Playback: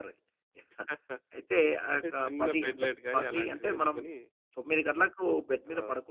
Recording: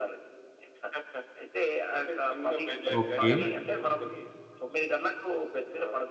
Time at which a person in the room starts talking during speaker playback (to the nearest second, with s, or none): 3 s